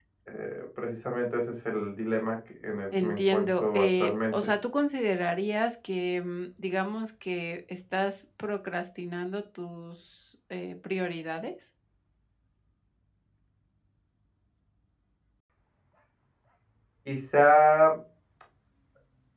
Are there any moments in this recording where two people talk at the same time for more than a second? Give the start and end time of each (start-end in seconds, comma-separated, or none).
3.0-4.5